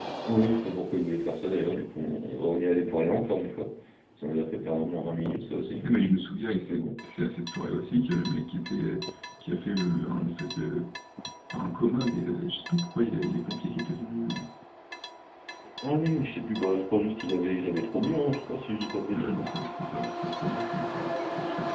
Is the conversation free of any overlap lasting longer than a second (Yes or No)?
Yes